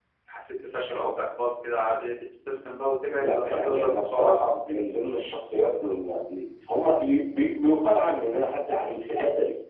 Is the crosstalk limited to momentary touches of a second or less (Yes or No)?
No